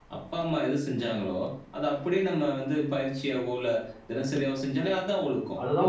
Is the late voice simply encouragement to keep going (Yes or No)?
No